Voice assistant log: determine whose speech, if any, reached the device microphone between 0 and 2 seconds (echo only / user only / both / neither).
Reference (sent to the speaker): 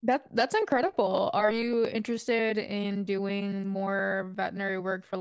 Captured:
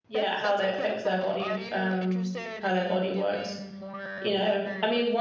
both